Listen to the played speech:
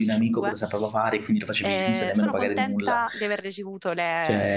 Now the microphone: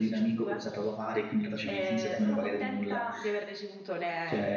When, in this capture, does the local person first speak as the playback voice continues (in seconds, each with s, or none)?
none